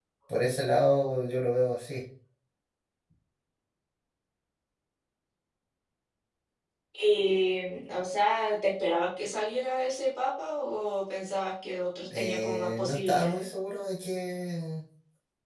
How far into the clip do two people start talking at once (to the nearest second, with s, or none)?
12 s